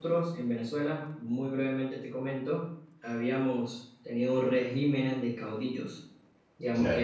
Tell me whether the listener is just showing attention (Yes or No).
Yes